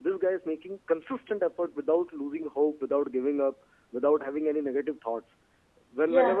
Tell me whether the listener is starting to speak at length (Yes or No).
No